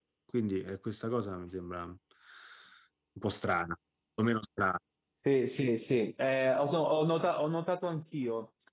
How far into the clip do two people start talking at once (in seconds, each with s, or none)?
none